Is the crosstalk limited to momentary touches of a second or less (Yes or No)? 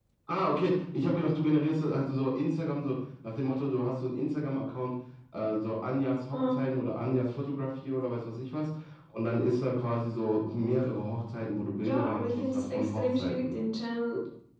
No